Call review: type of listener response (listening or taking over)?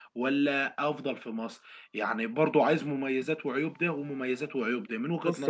taking over